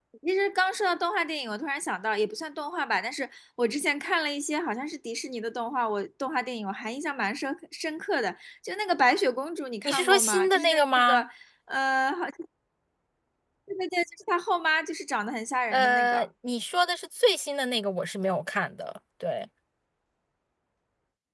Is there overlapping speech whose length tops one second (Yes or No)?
Yes